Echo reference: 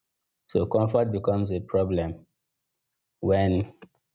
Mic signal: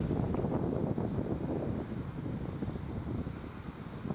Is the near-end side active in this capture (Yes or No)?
No